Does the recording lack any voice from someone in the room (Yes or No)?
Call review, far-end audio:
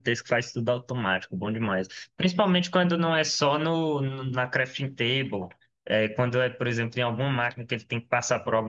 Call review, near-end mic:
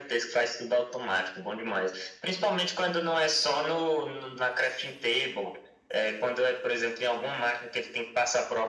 Yes